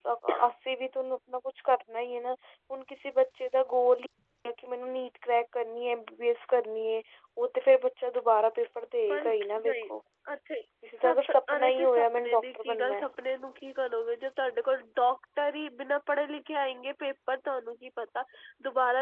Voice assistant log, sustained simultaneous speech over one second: present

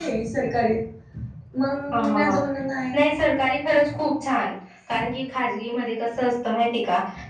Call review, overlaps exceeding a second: none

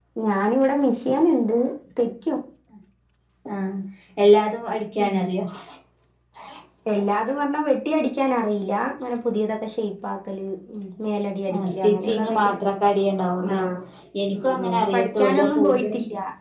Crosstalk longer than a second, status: present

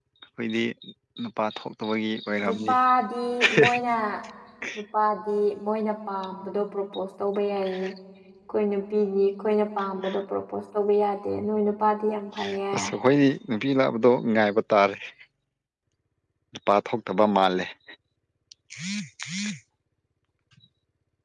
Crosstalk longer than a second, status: none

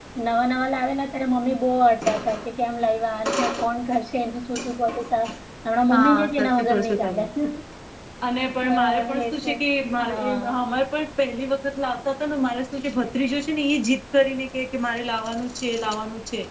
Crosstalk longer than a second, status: present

